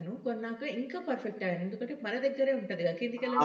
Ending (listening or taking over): taking over